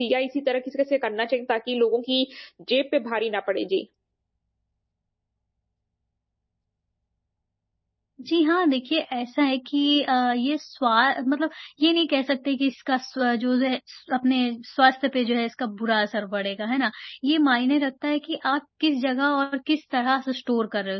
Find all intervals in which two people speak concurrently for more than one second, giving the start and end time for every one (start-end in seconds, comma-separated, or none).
none